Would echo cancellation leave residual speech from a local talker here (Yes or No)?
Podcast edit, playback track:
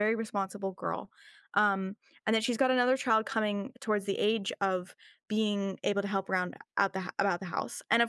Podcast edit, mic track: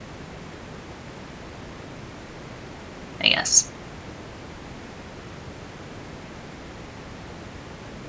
Yes